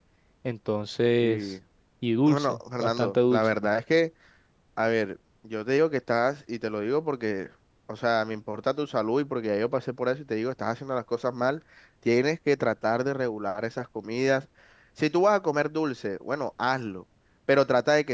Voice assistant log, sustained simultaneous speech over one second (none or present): present